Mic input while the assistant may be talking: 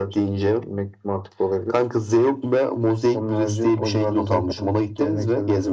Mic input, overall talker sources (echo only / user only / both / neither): echo only